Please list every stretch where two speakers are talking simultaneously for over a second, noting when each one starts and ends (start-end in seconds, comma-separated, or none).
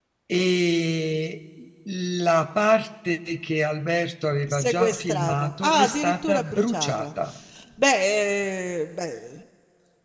4.5-7.1